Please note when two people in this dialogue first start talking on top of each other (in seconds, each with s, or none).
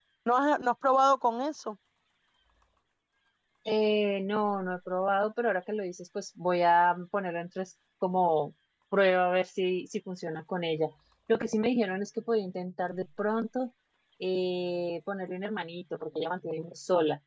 none